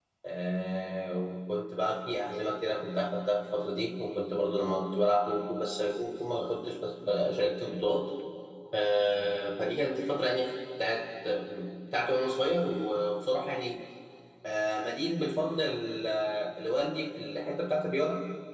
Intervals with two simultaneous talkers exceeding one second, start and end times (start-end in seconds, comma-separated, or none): none